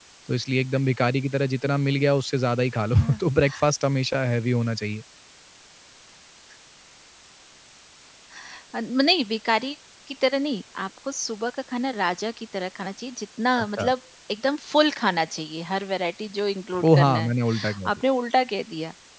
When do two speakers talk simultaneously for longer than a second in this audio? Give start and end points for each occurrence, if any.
none

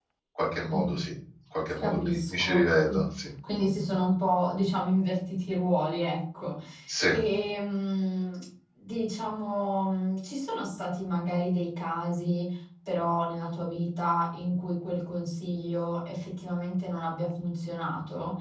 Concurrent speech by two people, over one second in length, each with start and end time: 1.8-3.0

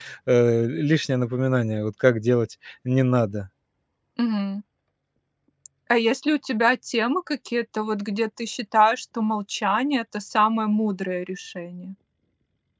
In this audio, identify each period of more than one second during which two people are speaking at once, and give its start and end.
none

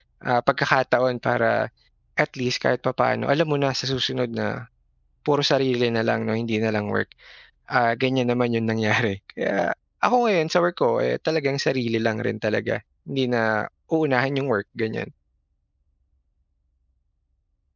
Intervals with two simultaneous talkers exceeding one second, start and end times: none

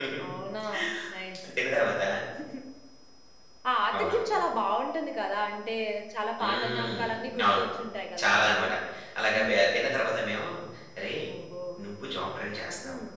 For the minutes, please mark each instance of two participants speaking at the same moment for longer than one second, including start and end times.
6.4-7.6

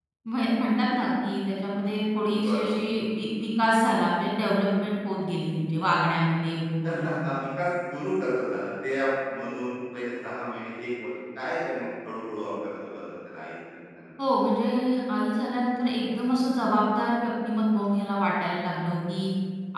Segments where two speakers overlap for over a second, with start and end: none

